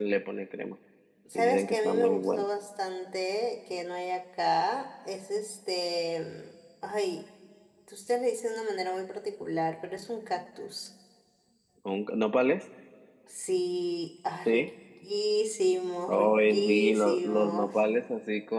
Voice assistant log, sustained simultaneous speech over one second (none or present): present